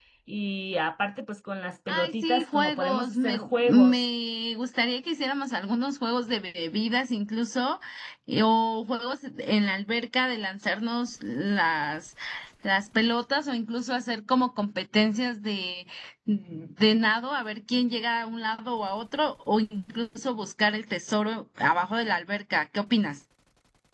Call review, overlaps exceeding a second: present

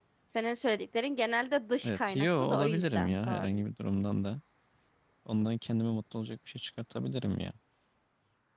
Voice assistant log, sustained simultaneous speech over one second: present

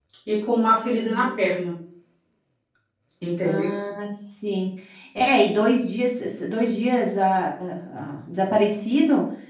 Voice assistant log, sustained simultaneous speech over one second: none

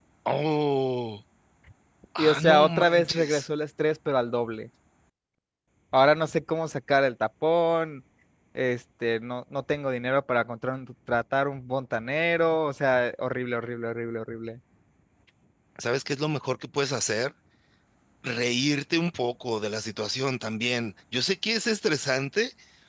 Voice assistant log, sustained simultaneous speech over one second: present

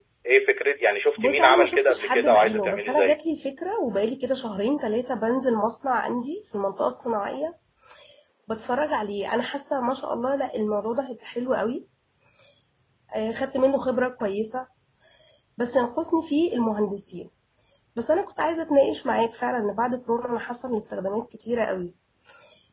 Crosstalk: present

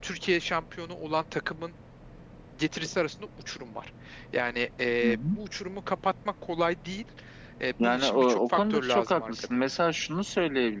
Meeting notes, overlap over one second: present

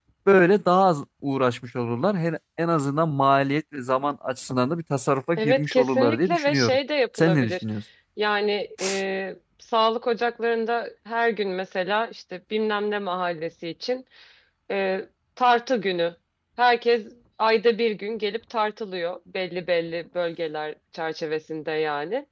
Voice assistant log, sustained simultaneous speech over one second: present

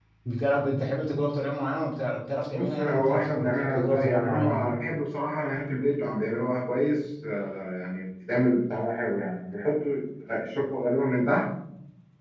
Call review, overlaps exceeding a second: present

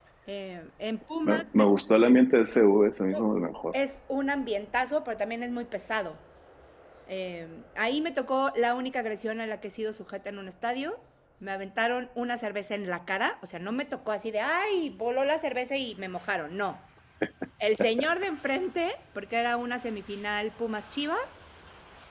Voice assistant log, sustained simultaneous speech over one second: none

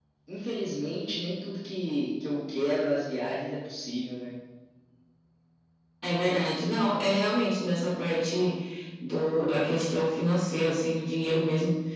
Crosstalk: none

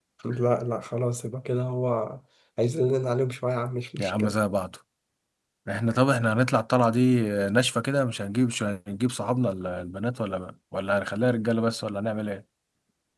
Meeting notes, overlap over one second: none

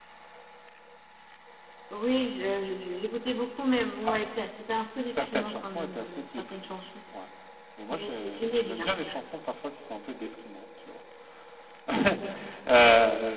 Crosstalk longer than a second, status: present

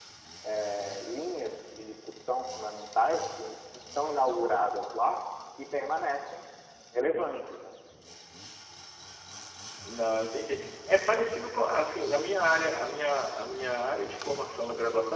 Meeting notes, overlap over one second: none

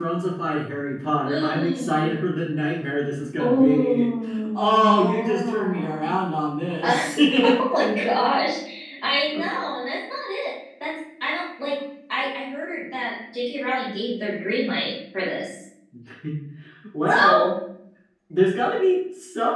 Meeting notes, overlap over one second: present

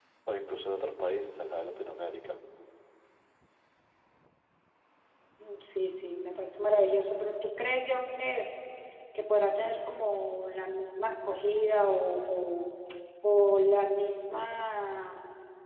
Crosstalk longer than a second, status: none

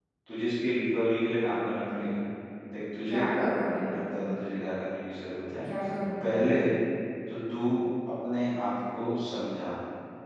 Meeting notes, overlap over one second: none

